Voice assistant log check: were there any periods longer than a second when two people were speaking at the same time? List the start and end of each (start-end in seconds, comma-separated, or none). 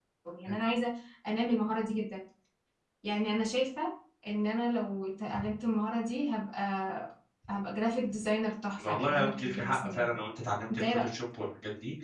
8.8-10.2